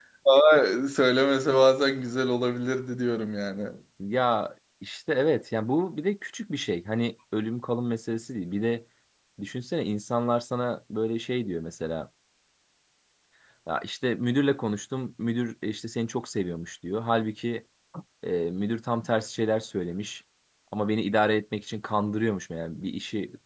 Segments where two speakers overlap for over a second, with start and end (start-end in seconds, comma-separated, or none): none